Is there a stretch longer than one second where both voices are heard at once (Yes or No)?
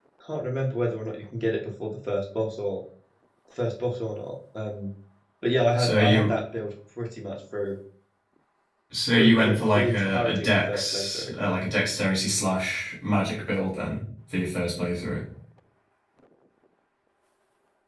Yes